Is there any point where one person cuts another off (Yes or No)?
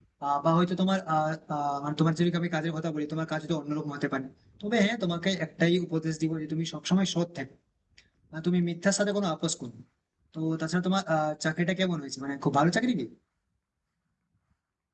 No